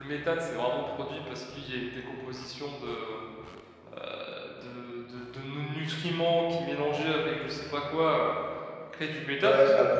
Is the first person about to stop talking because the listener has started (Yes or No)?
Yes